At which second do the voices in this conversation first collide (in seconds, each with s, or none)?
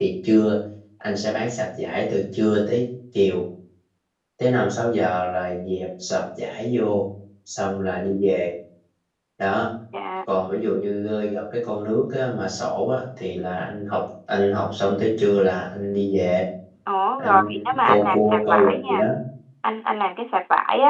17.2 s